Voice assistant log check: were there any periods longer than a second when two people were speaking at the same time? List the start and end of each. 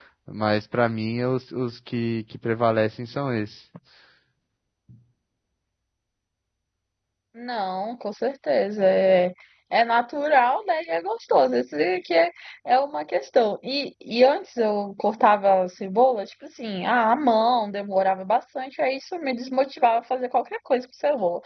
none

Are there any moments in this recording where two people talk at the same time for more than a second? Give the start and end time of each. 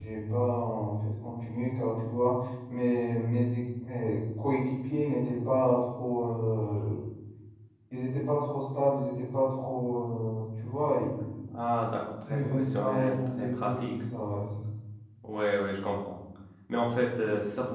12.3-13.9

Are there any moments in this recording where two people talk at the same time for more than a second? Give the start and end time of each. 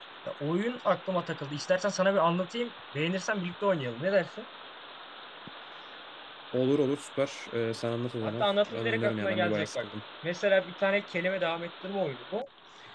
8.2-9.8

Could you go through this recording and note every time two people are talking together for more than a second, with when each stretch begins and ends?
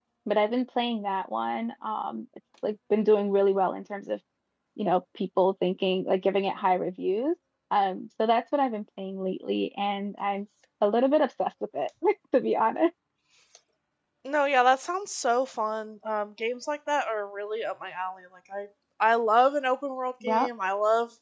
none

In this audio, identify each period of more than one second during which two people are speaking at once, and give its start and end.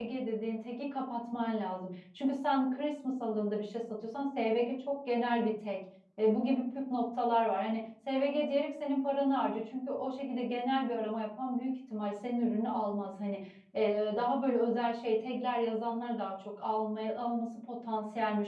none

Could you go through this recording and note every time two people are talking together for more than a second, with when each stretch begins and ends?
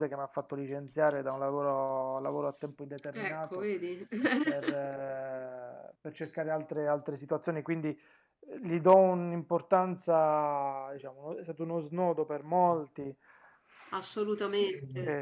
none

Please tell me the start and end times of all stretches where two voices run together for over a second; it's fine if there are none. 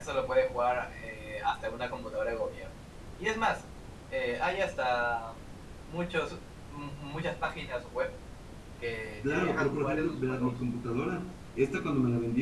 9.2-10.5

